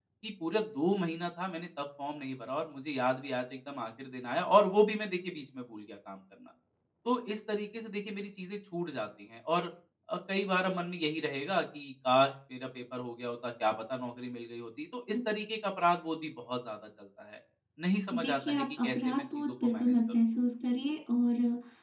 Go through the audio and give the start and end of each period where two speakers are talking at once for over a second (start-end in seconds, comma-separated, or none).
18.1-19.9